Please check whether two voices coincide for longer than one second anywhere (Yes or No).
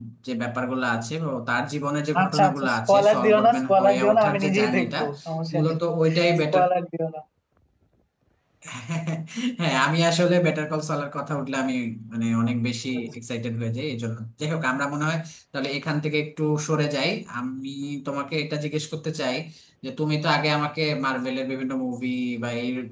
Yes